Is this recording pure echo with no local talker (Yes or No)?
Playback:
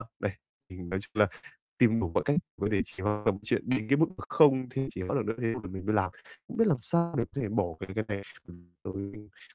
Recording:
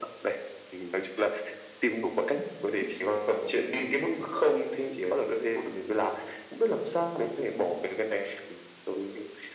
Yes